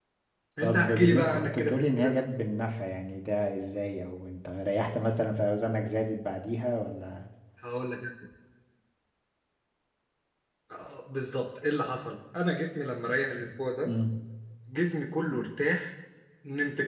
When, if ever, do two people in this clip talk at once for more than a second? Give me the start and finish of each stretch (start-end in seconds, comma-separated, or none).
0.6-2.1